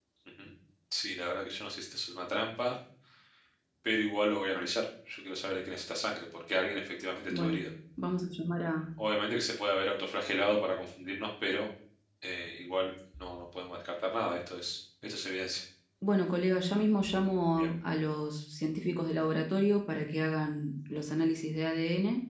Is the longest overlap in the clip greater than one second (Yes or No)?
No